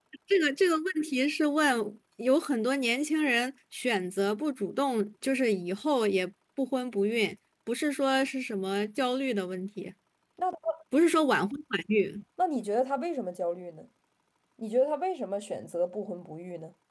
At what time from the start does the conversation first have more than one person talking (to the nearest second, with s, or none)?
none